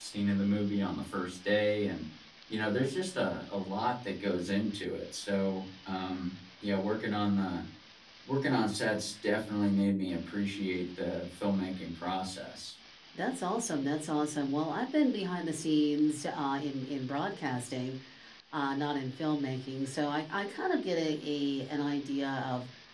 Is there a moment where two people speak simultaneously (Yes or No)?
No